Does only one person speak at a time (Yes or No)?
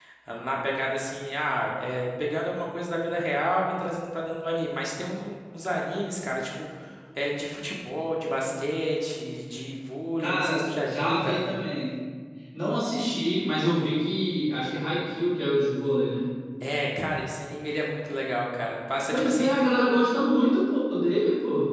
No